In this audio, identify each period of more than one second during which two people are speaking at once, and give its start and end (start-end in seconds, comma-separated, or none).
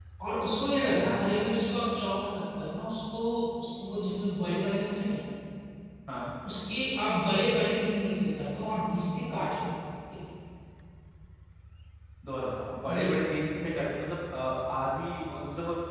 none